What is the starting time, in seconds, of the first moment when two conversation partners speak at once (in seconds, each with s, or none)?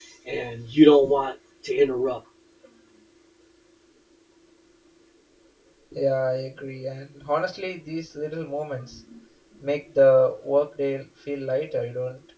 none